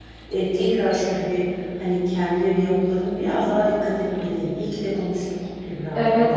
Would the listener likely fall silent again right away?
No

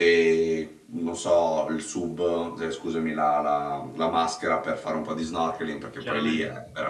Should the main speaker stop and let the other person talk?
No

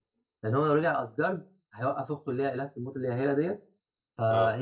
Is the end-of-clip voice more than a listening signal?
No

